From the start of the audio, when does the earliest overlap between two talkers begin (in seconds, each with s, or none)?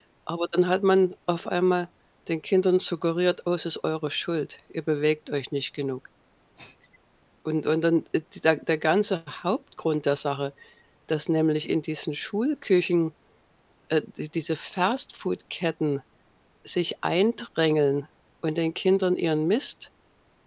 none